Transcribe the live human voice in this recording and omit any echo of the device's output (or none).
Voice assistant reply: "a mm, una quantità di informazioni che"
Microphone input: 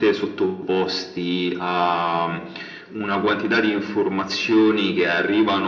none